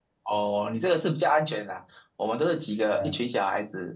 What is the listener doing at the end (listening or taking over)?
listening